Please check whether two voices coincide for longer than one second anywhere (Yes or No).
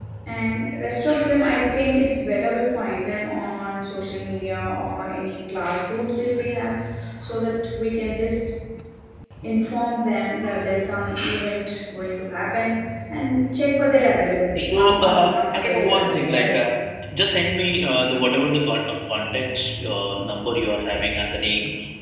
Yes